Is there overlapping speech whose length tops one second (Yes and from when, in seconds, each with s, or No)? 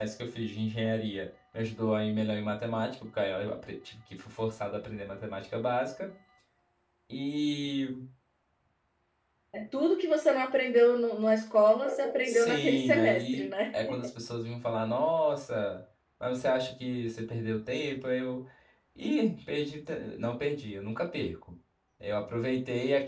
Yes, from 12.2 s